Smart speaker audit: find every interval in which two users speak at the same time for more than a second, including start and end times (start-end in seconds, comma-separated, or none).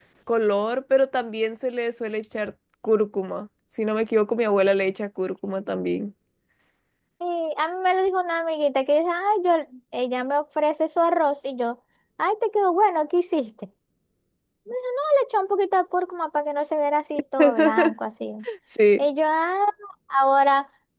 none